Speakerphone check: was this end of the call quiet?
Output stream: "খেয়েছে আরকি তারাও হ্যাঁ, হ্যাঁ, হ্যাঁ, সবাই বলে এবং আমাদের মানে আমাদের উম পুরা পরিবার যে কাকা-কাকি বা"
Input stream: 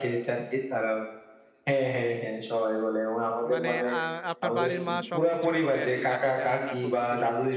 No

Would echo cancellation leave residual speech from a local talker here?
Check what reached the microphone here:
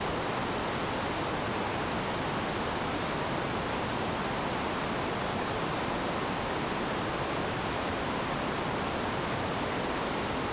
No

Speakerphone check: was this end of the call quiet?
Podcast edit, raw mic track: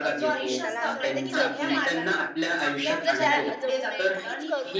No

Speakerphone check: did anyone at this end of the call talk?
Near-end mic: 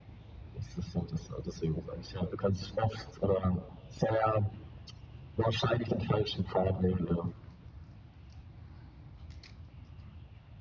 No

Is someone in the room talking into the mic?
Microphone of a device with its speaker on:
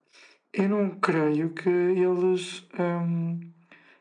No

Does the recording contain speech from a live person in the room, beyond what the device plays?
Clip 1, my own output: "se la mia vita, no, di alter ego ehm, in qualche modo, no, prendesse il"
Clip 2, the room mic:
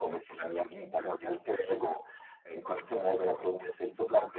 No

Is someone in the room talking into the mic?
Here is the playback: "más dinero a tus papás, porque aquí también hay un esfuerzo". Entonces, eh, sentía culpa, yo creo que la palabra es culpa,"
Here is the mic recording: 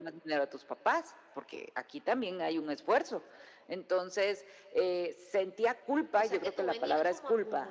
Yes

